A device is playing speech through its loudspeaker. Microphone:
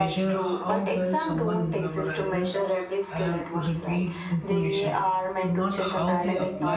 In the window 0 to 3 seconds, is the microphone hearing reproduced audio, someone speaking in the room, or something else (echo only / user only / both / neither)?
both